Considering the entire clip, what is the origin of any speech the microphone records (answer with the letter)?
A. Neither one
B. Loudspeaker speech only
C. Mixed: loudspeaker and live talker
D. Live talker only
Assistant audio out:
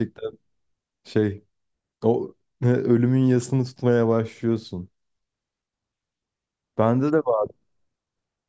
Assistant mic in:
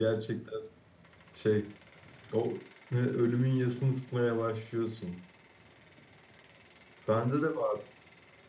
B